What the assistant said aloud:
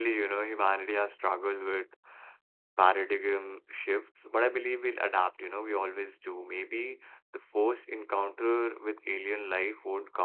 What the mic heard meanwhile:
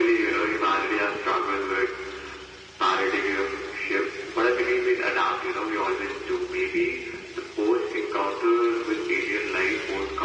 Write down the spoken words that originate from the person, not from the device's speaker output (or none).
none